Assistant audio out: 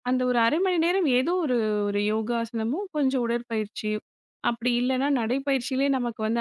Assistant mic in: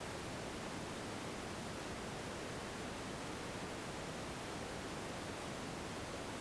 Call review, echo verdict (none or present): none